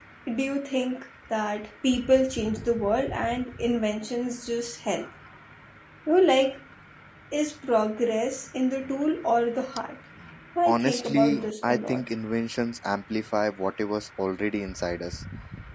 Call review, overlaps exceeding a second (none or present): present